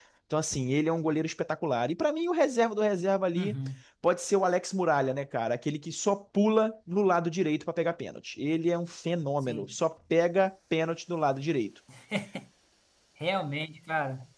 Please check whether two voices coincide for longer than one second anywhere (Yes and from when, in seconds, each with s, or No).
No